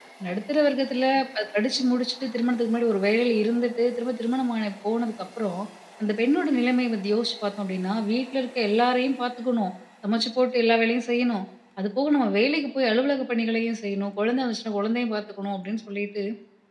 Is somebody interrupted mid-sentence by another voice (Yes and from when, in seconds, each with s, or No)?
No